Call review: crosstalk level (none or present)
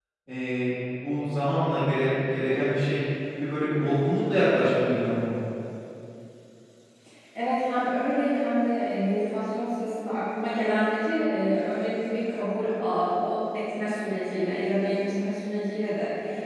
none